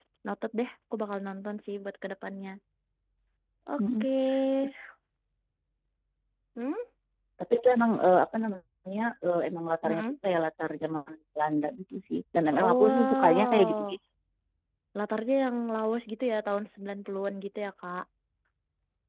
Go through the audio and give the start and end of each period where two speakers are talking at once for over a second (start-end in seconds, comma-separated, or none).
12.6-13.8